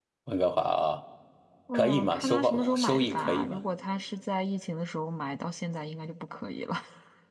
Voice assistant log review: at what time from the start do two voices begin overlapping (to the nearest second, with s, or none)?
2 s